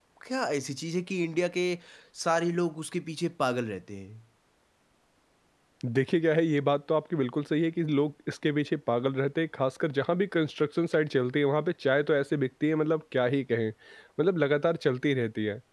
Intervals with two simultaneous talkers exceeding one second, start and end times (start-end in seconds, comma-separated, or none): none